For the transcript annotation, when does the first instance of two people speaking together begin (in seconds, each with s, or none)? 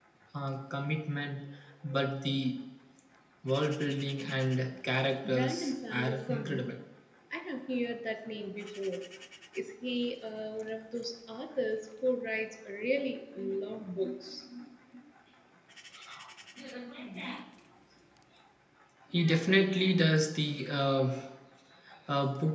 5.3 s